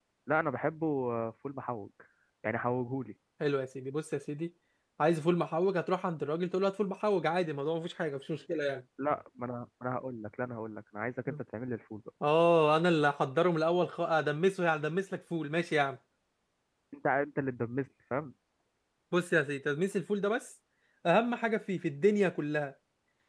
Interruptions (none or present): none